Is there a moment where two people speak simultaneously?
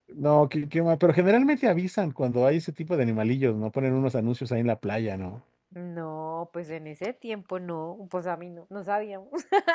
No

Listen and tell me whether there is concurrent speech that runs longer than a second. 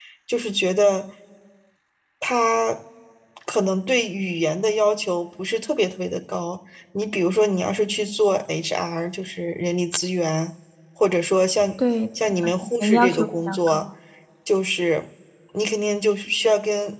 Yes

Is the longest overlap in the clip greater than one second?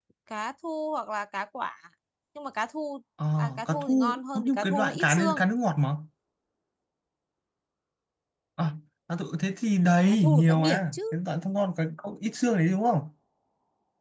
Yes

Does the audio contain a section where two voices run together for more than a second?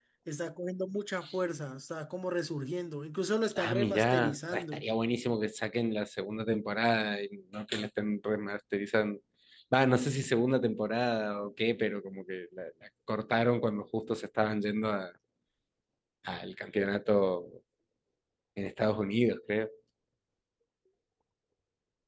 Yes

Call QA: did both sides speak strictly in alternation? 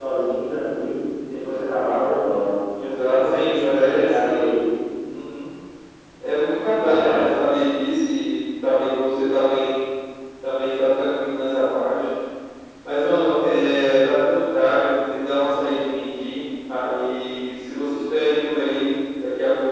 No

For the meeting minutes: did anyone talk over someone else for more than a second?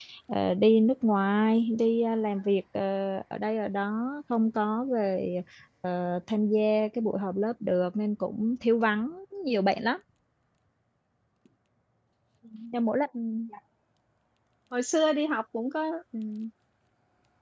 No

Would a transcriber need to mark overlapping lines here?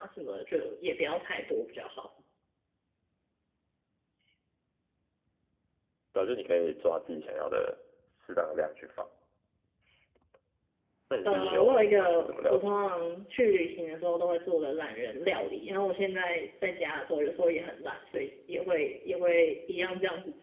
Yes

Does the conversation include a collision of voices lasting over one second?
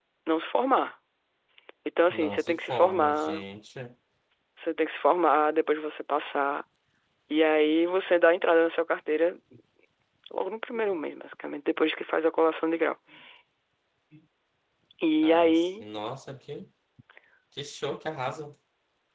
Yes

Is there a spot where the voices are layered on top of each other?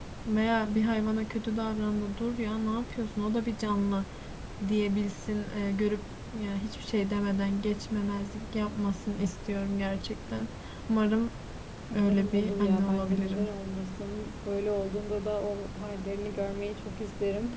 Yes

